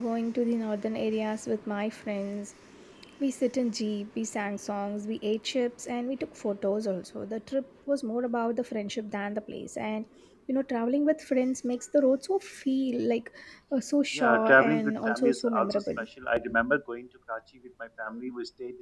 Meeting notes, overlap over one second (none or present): present